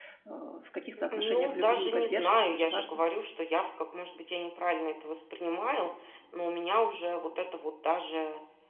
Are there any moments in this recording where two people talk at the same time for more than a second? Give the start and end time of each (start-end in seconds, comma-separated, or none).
1.1-2.9